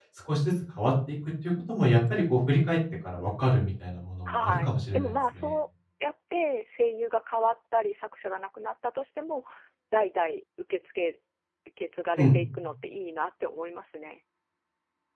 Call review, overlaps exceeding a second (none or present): present